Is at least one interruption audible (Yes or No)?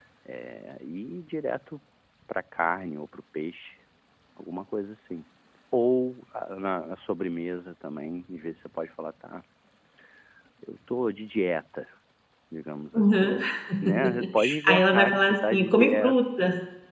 Yes